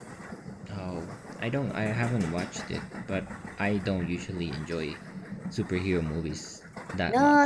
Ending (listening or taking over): taking over